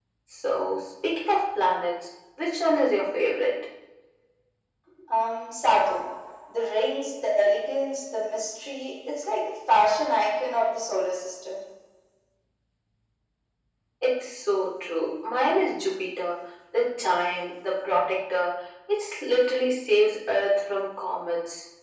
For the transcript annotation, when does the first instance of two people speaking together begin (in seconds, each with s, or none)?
none